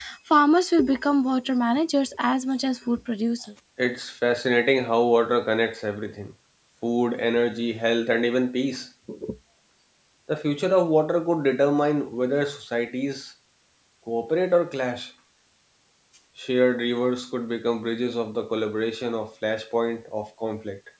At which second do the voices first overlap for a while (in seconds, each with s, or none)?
none